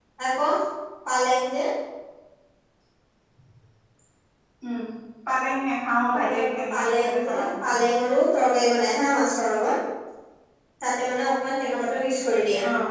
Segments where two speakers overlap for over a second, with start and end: 6.1-7.8

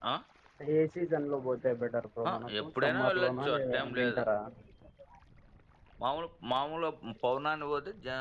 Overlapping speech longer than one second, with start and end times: 2.3-4.2

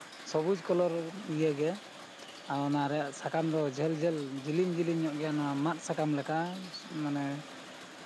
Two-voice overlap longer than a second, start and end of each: none

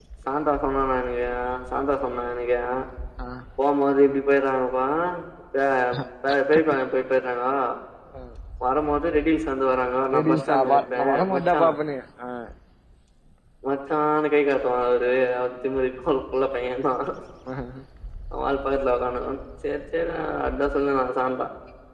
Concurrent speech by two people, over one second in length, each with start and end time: 10.3-11.6

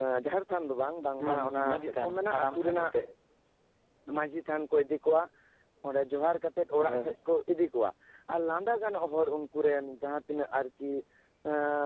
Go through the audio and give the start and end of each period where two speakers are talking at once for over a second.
1.3-2.9

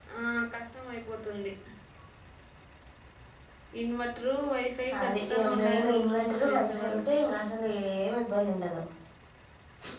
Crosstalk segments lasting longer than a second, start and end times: 5.0-7.0

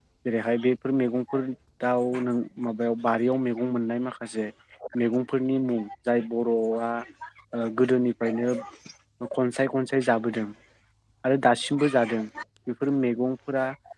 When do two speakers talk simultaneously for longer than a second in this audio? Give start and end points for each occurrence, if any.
none

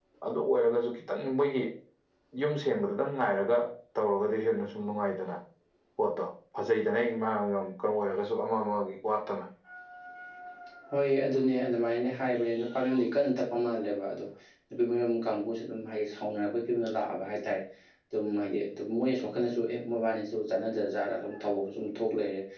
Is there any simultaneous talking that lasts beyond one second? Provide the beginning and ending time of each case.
none

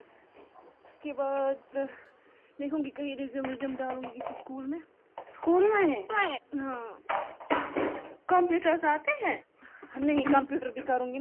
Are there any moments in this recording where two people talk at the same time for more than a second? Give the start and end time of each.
none

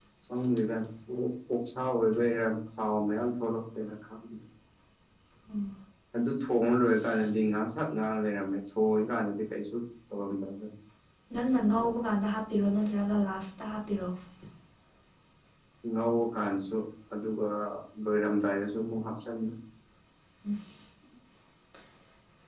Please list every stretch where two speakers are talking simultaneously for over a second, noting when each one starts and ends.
none

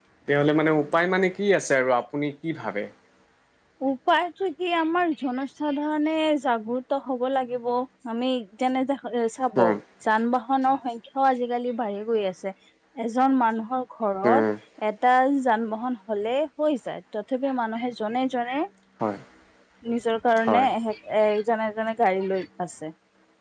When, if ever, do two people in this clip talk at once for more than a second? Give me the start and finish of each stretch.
none

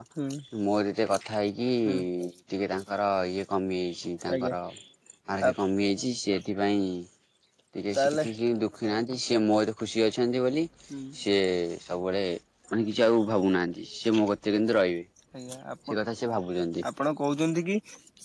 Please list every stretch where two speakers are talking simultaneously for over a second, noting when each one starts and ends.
none

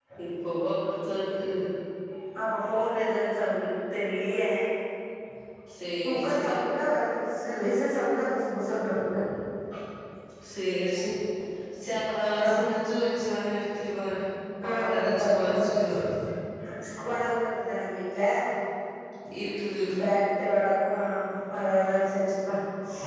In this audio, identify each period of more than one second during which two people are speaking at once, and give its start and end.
14.7-16.0

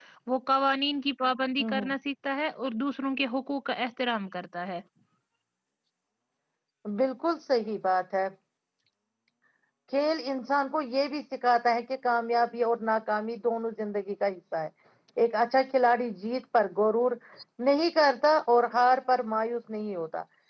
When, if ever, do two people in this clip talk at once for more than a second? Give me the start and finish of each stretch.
none

